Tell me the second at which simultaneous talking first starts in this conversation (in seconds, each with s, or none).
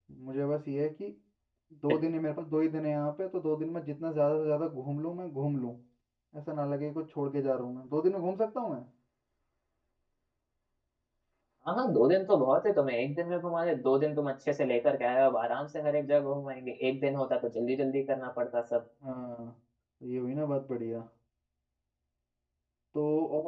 none